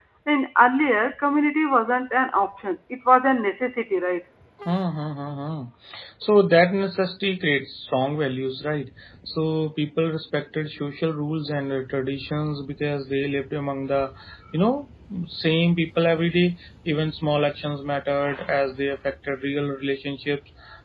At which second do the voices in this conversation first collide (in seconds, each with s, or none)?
none